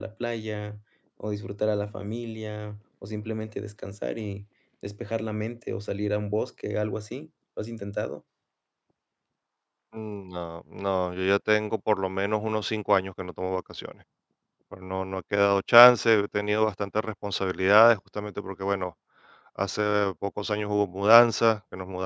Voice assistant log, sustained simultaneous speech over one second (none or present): none